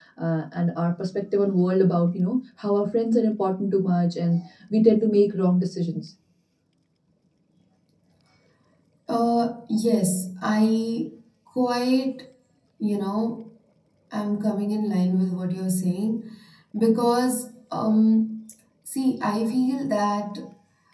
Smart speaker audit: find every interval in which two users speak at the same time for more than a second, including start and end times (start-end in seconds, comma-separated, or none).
none